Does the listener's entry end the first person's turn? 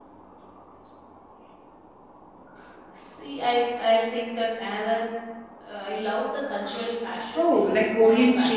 Yes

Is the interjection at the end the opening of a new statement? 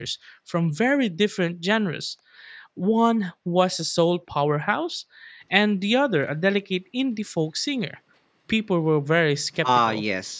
Yes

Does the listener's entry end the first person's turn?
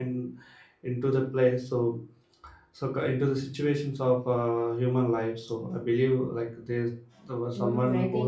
Yes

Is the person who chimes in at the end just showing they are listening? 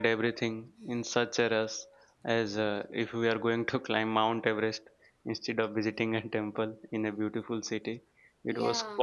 Yes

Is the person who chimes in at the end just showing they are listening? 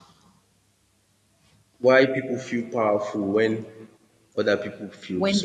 No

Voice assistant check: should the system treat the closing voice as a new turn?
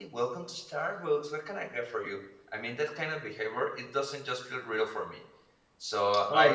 Yes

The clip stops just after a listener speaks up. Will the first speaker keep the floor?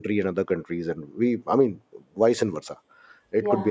Yes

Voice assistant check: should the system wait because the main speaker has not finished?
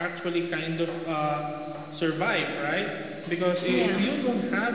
Yes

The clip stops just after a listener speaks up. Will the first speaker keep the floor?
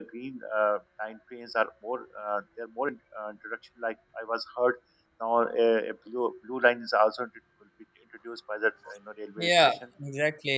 No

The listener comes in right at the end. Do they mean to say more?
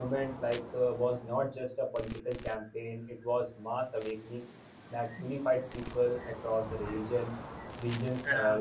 No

